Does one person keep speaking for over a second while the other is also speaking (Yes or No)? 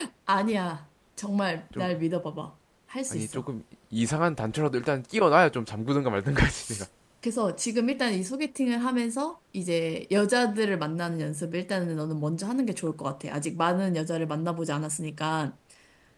No